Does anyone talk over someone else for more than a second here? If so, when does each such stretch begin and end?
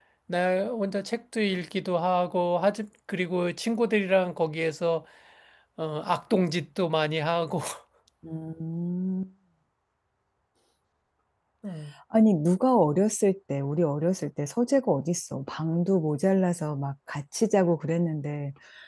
none

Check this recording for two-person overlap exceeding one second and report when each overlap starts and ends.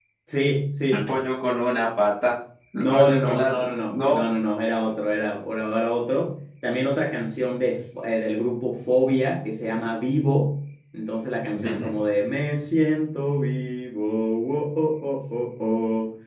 2.8-4.2

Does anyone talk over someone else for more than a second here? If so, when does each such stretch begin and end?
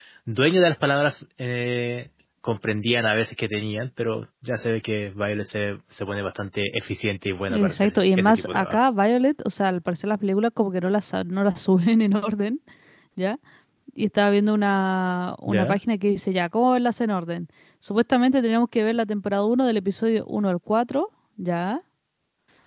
7.5-8.8

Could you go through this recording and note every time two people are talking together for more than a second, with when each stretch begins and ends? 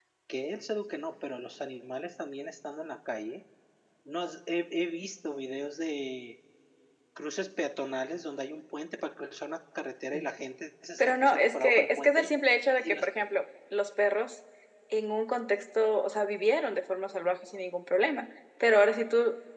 11.0-12.3

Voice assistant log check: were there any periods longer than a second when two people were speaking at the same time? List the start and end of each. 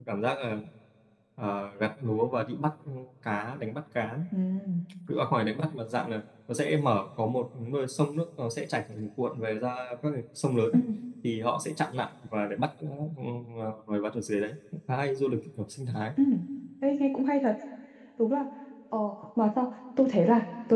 none

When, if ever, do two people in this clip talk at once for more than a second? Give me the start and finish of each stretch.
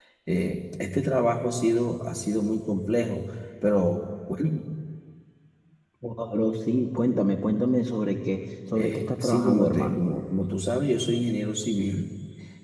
8.7-10.0

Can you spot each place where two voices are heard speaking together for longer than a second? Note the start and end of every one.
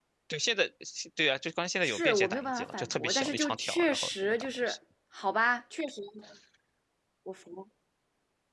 1.8-4.8

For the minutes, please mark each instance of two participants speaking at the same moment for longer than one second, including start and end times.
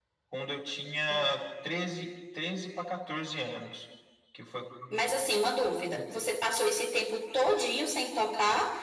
none

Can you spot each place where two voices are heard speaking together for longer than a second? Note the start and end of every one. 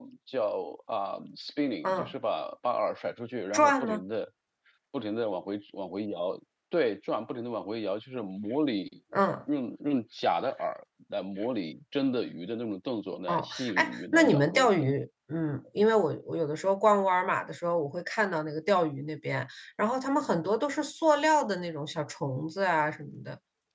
13.3-14.9

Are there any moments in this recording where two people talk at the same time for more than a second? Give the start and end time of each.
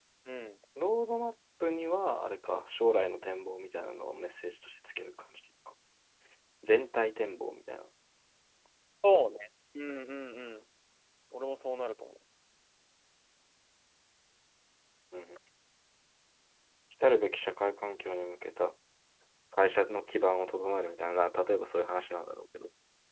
none

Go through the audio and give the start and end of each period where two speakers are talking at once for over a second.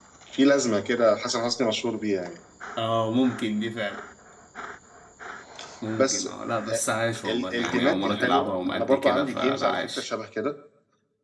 7.3-10.0

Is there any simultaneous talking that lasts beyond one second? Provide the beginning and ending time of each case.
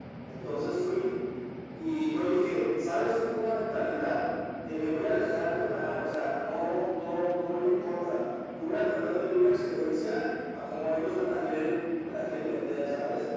none

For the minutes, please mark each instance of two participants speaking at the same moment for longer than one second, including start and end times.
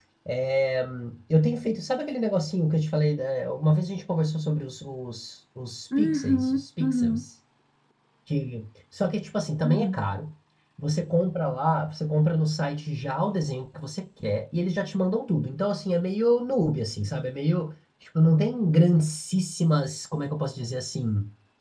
6.0-7.2

